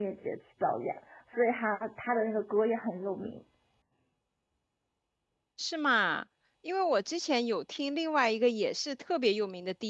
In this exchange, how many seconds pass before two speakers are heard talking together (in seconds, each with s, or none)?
none